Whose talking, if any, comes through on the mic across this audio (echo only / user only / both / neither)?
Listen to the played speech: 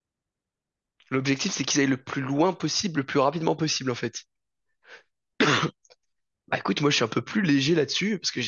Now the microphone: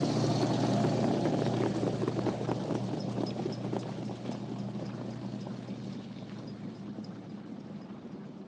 neither